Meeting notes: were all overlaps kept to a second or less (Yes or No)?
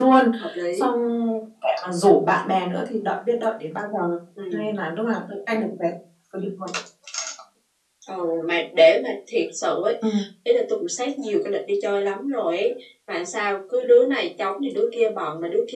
Yes